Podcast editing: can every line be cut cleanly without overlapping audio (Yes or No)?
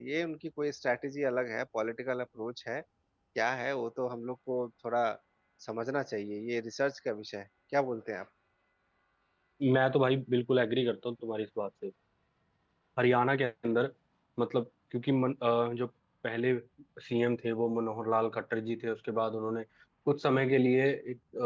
Yes